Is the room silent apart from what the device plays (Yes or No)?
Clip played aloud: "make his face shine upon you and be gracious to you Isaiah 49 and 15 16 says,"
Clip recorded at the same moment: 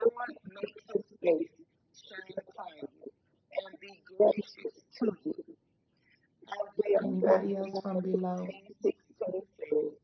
No